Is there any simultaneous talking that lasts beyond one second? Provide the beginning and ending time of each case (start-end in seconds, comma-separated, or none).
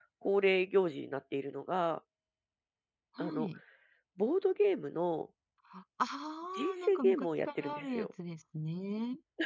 6.5-8.1